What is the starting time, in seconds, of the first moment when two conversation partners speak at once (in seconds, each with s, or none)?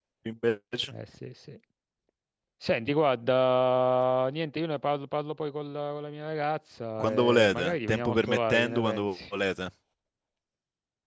7.0 s